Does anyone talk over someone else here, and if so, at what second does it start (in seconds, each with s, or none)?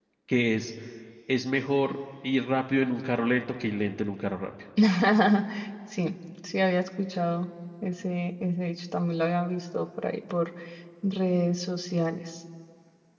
none